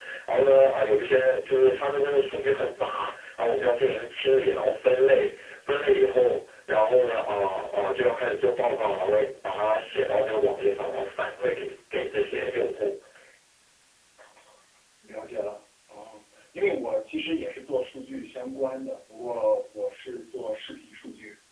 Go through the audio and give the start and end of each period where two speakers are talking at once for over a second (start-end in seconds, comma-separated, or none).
none